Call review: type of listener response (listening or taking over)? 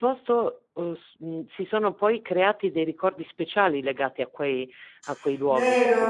taking over